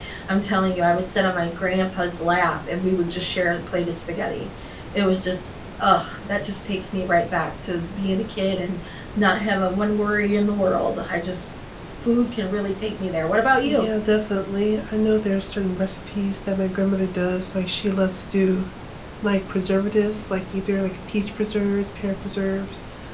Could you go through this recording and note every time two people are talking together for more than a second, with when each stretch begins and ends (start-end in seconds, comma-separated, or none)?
none